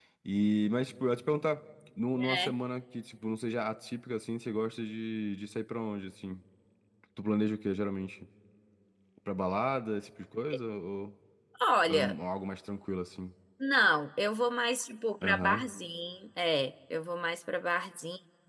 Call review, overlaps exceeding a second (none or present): none